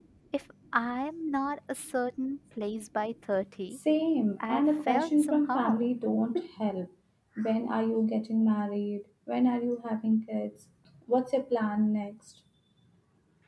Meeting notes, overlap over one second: present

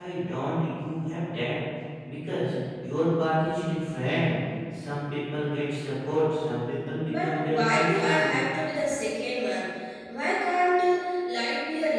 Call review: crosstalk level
present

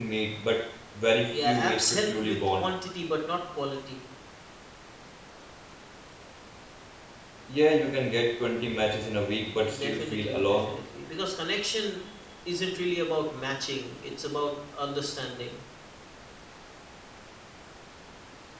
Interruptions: present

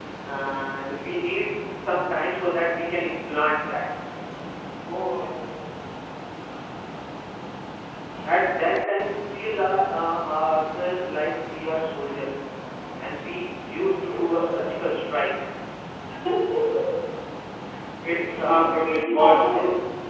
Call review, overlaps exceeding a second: present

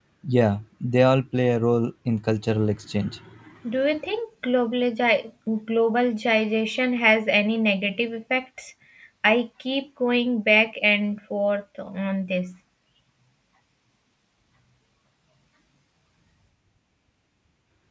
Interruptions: none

